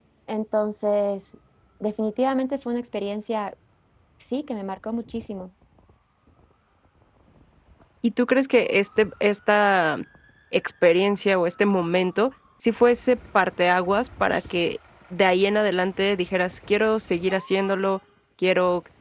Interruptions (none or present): none